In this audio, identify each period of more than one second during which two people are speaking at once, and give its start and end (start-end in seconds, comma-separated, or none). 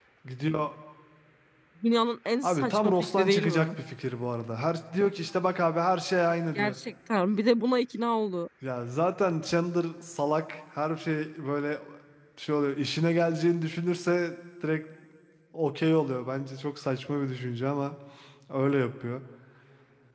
2.4-3.7